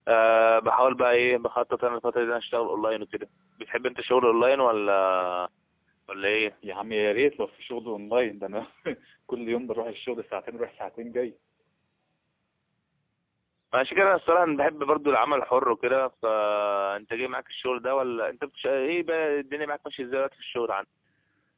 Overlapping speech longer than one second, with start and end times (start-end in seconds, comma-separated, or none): none